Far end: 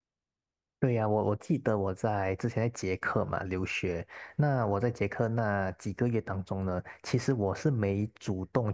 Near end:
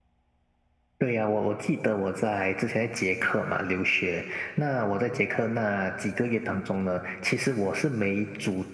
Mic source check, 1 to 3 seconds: echo only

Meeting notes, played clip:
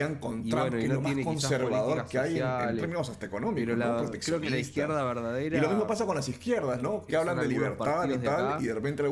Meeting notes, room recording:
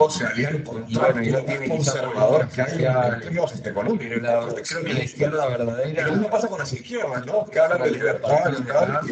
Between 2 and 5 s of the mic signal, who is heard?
echo only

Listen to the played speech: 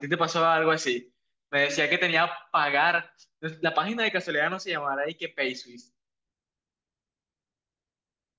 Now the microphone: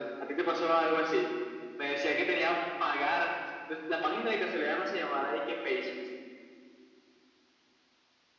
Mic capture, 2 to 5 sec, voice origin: echo only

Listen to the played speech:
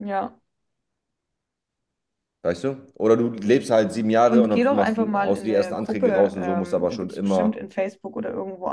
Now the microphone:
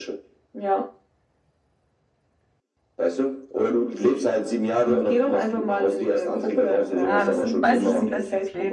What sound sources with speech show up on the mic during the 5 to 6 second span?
echo only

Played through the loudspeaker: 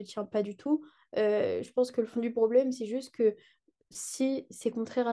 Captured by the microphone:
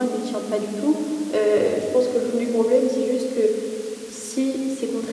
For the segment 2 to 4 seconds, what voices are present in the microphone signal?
echo only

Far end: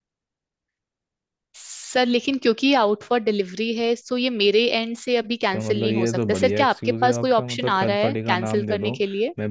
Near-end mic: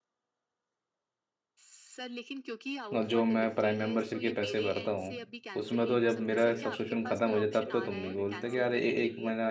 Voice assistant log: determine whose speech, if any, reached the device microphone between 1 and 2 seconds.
echo only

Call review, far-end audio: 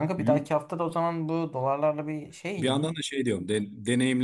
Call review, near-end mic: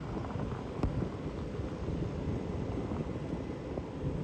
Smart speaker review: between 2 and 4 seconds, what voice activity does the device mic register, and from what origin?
neither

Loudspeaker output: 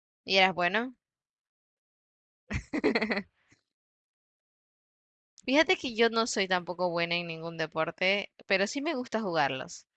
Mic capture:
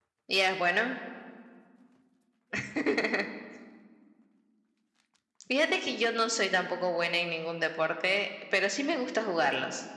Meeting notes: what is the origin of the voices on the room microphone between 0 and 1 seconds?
echo only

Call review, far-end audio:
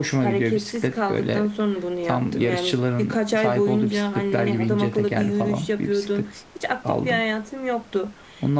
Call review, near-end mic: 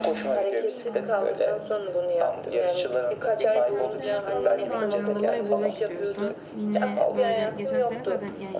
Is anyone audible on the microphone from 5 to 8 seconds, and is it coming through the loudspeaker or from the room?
both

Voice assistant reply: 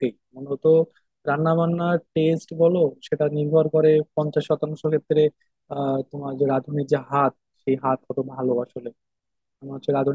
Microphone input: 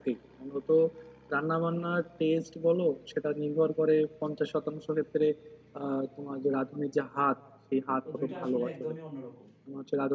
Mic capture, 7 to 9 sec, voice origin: both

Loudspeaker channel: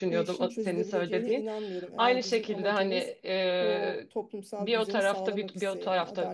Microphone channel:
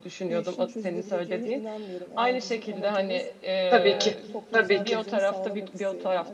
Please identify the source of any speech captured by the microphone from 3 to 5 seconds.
both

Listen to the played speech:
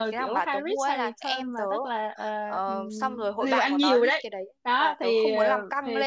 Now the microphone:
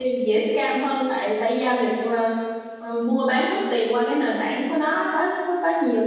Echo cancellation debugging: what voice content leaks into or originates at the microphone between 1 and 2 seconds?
user only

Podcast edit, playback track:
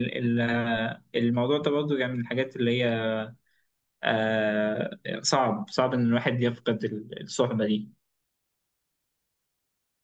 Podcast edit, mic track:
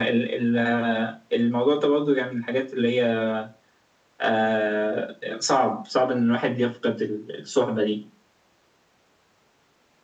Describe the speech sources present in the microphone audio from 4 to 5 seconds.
echo only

